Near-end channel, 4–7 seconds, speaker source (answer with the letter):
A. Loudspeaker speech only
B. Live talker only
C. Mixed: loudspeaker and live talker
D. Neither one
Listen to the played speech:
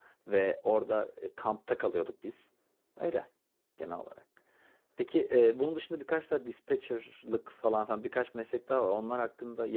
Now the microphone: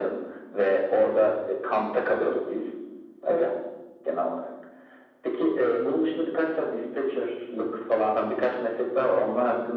A